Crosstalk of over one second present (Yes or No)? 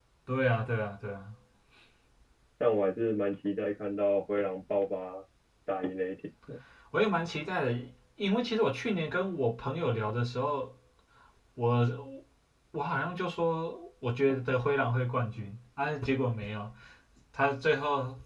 No